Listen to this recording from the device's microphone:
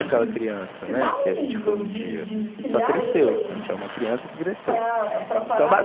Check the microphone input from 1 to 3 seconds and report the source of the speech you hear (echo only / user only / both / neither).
both